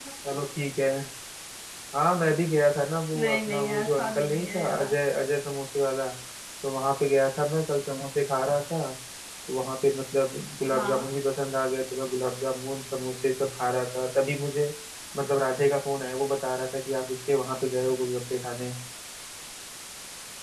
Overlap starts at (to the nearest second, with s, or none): 3 s